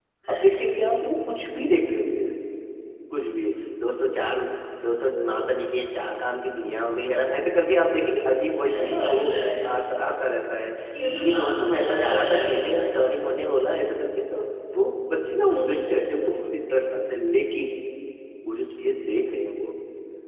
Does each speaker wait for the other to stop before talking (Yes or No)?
No